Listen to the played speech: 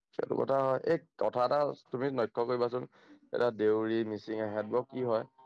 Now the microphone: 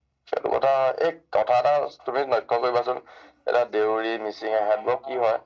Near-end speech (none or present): none